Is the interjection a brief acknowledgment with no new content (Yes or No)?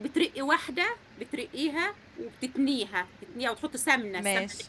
Yes